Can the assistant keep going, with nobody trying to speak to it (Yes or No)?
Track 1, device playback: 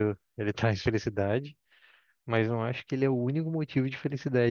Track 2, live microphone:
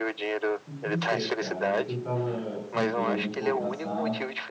No